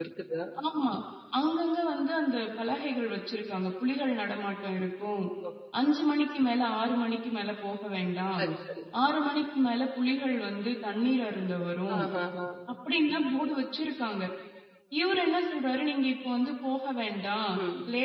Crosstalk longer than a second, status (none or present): none